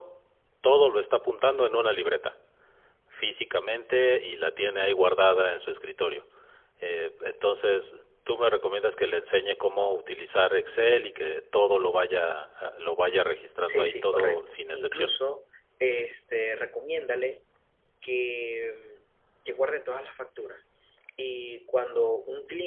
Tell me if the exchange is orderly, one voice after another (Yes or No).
No